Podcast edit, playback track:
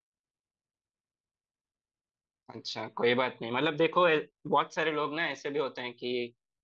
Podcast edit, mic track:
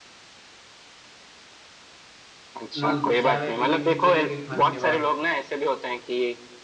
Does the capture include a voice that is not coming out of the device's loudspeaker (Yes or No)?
Yes